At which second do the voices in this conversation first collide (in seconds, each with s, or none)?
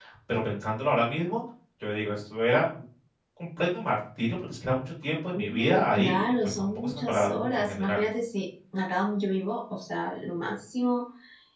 5.4 s